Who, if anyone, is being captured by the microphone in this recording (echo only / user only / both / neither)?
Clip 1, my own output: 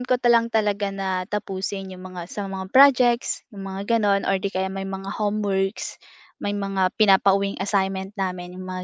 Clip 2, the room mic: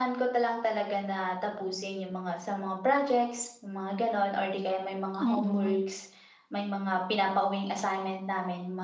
both